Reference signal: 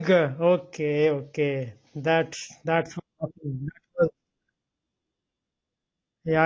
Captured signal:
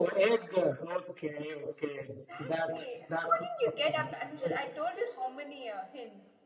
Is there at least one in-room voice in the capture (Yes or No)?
Yes